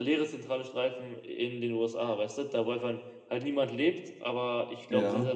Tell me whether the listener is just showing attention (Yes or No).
Yes